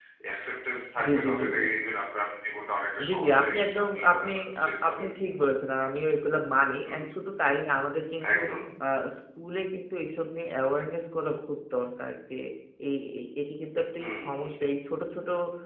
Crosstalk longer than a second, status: present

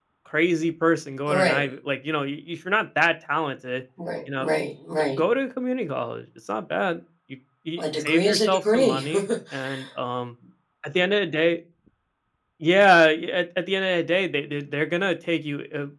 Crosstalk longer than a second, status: present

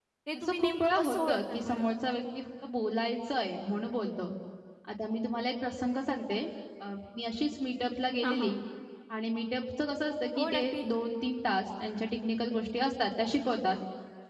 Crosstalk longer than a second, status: present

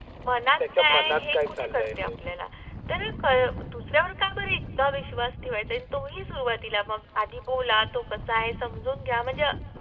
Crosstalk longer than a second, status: present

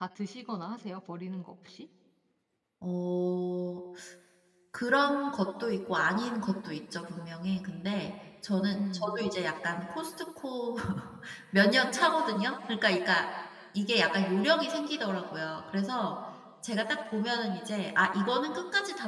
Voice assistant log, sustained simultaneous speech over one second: none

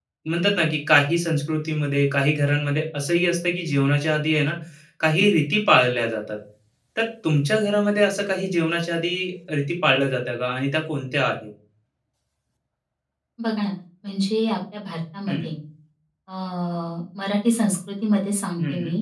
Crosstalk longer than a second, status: none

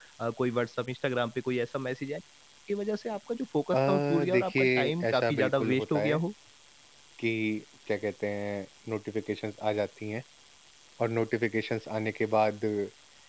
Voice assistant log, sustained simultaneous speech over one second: present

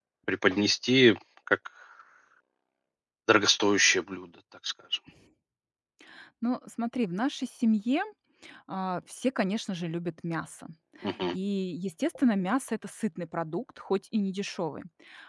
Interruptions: none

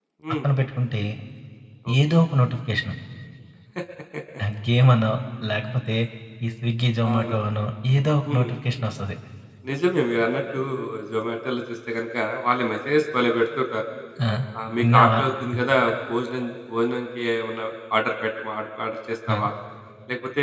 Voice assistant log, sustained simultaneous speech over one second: none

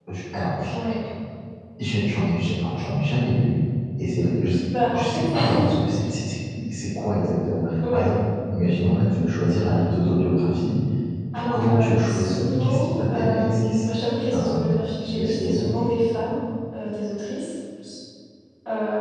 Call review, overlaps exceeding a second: present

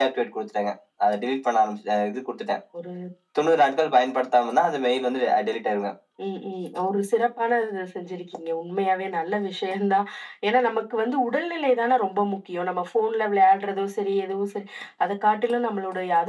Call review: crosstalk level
none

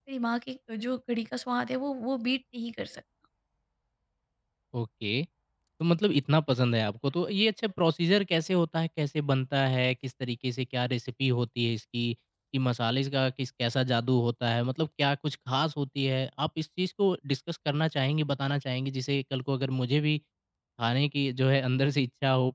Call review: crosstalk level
none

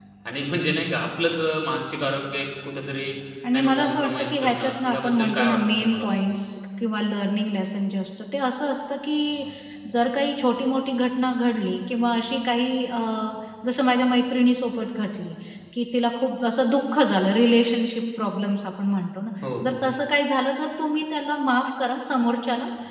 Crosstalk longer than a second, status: present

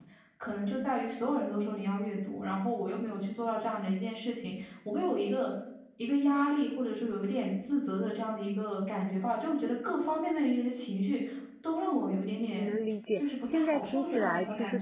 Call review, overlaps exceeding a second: present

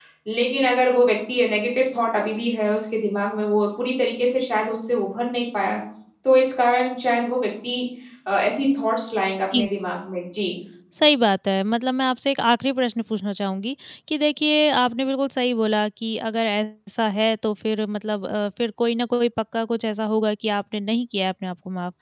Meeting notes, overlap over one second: none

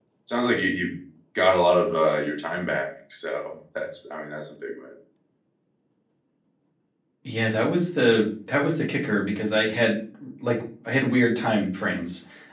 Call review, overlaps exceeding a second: none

